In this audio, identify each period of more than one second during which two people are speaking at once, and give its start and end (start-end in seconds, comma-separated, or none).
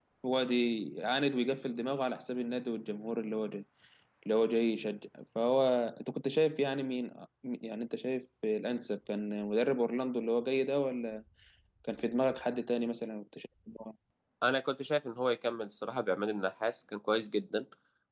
none